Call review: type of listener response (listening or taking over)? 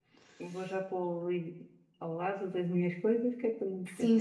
taking over